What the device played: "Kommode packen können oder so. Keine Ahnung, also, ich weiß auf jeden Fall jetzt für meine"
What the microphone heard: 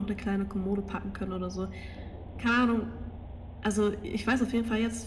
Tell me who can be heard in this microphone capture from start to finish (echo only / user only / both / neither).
echo only